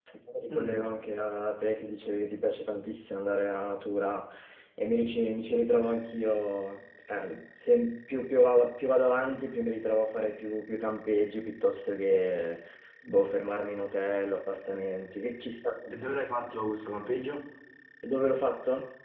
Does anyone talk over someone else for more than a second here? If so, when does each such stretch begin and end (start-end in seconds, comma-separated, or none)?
none